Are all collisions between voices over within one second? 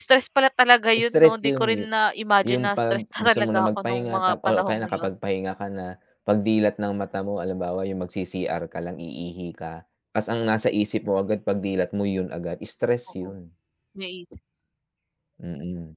No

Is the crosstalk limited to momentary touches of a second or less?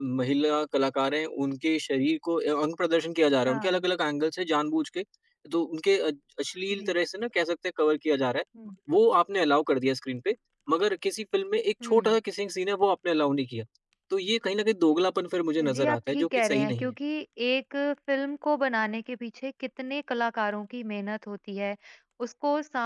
No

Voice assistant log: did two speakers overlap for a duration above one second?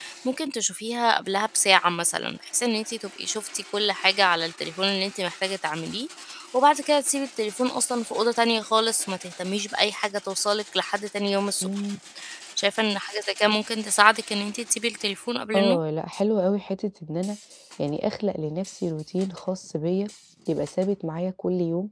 No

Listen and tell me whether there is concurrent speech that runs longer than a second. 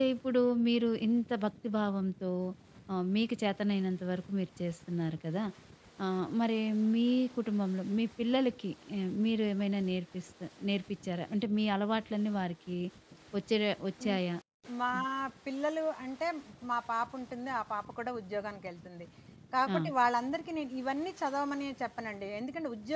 No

